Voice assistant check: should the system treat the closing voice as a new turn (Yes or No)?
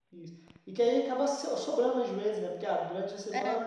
No